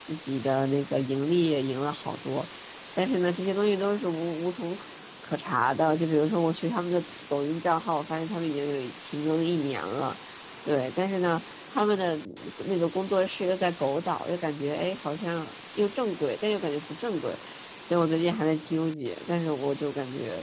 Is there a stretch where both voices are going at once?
No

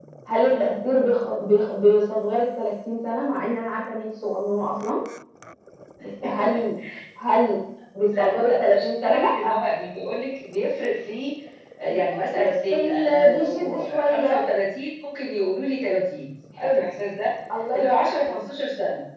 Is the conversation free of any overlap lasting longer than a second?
No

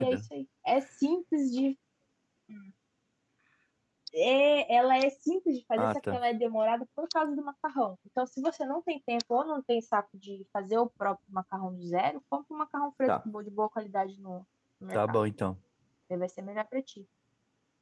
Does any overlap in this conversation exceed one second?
No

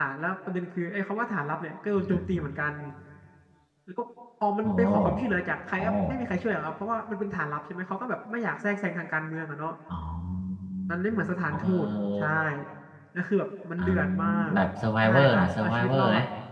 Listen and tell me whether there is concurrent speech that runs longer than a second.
Yes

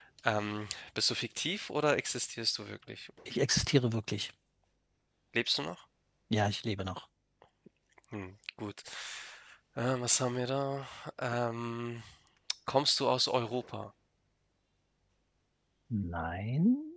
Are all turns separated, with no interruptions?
Yes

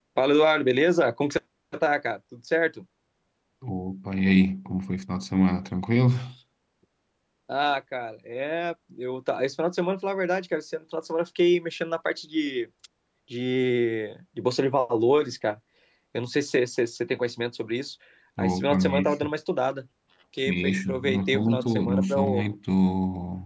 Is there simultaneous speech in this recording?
Yes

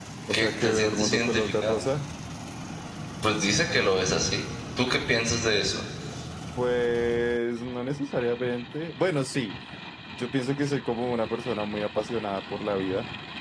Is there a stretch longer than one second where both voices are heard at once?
Yes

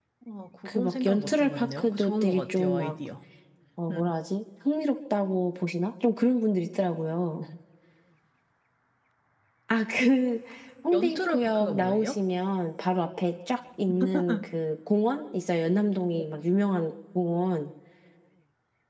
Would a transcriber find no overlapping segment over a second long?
No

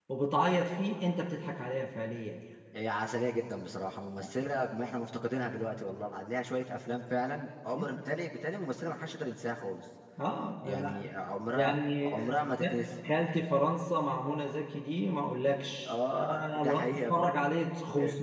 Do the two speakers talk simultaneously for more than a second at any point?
Yes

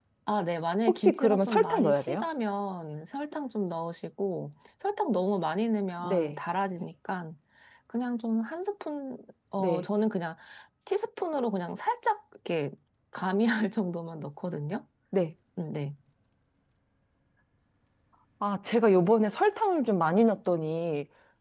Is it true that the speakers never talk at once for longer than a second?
No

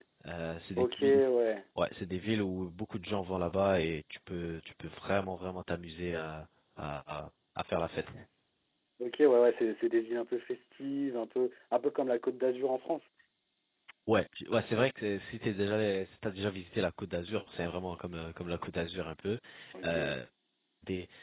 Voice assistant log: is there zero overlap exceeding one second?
Yes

